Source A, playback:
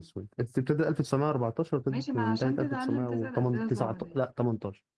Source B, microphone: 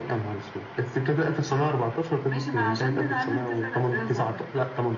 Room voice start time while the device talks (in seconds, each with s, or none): none